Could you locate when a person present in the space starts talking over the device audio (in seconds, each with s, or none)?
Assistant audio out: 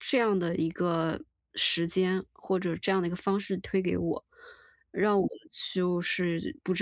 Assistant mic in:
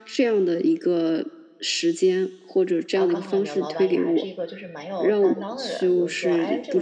2.9 s